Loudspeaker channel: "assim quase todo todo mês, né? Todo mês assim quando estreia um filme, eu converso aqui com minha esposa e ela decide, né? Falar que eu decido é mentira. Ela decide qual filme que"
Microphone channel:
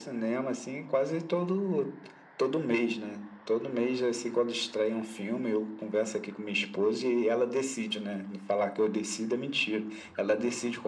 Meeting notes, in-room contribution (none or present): none